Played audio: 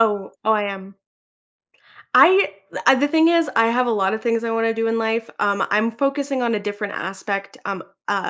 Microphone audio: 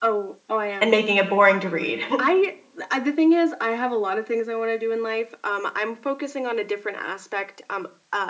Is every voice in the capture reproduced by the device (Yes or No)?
No